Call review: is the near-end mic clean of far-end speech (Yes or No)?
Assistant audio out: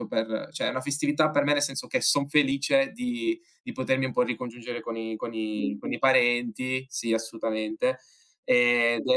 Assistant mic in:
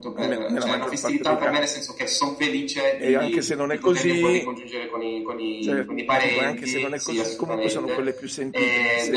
No